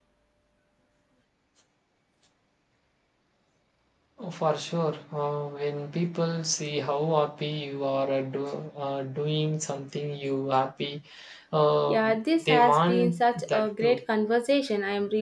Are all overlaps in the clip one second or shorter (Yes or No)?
No